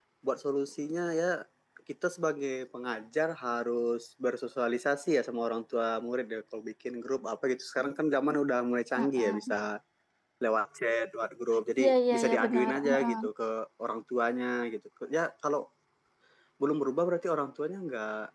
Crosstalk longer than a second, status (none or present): present